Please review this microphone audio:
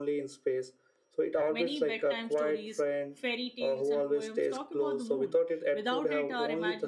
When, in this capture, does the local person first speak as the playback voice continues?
1 s

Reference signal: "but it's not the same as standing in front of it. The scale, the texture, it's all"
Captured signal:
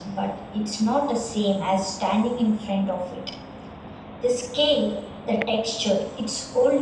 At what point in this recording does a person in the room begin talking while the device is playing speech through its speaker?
none

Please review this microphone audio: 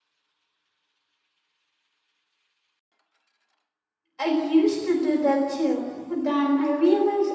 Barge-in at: 4 s

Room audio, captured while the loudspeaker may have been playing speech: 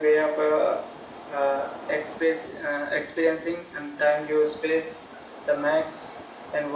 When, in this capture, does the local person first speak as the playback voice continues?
none

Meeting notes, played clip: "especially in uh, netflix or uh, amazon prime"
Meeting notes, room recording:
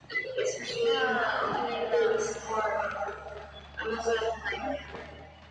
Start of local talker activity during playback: 1 s

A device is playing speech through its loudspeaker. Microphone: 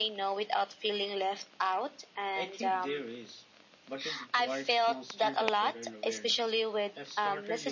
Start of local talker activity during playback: 2 s

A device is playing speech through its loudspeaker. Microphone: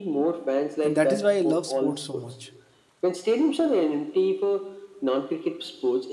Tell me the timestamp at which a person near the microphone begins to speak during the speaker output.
1 s

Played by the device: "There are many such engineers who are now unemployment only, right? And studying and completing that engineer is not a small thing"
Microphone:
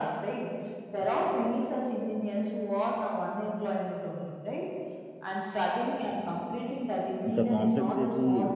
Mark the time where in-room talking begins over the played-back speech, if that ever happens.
7 s

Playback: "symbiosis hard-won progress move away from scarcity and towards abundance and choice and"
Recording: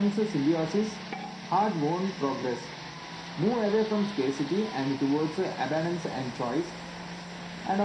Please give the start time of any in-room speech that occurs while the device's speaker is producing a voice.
none

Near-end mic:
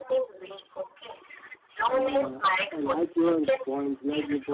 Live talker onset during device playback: 2 s

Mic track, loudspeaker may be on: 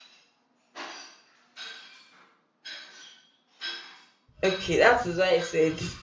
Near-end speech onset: 4 s

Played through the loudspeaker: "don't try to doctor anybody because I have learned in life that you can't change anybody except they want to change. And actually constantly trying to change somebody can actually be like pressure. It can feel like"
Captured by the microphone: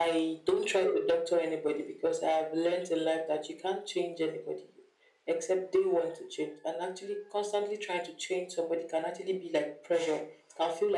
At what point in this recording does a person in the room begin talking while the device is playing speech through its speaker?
none

